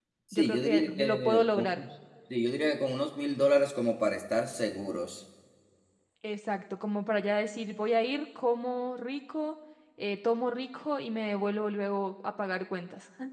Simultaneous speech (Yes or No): Yes